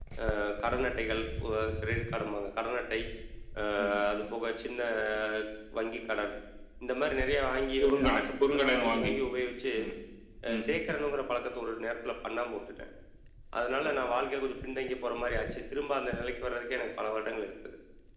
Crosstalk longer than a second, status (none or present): present